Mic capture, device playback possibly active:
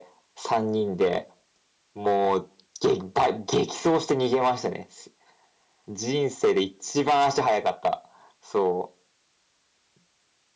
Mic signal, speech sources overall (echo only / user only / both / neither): echo only